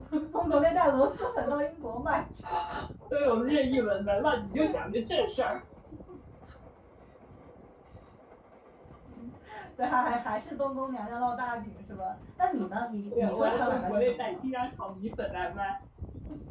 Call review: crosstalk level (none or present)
present